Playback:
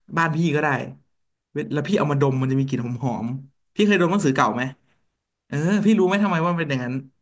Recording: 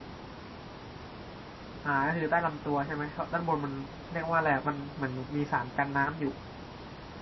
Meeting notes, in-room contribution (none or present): present